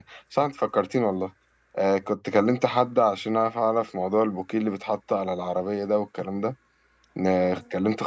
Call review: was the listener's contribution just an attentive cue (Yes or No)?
Yes